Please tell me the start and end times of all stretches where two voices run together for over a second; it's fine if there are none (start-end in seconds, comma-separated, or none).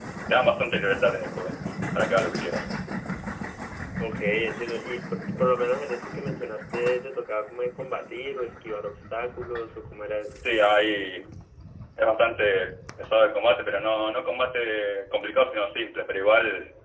none